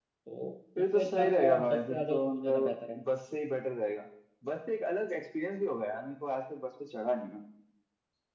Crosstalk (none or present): present